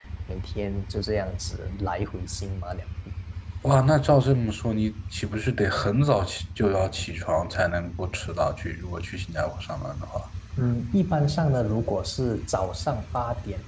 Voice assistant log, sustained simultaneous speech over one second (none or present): none